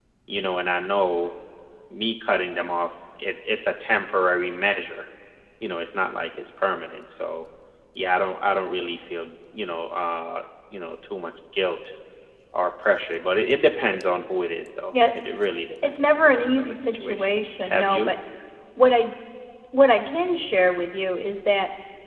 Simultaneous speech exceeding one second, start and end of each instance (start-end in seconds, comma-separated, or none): 15.8-18.1